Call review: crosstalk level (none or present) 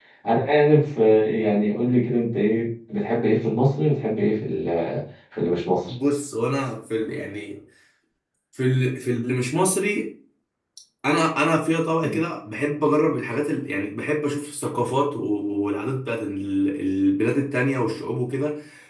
none